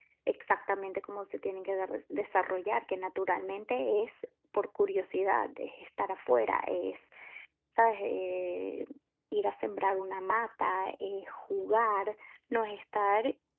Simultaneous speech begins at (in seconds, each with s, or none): none